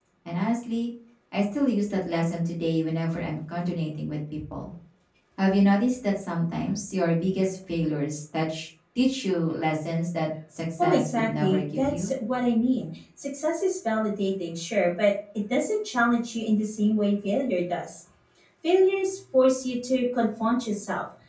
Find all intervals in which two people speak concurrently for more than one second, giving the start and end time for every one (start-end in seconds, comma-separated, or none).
10.8-12.1